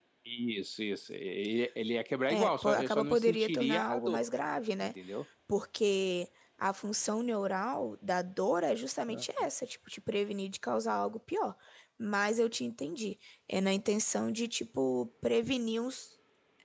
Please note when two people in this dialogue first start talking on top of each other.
2.3 s

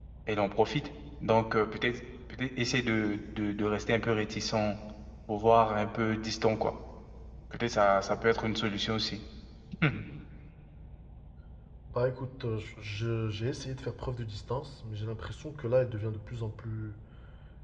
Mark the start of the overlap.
none

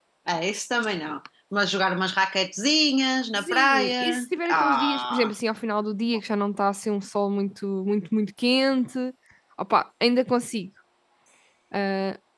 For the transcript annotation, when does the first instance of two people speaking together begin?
3.3 s

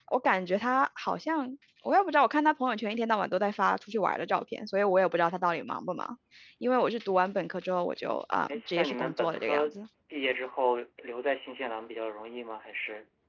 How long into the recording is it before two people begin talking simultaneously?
8.5 s

